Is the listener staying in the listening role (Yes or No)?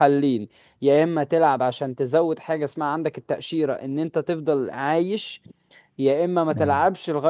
Yes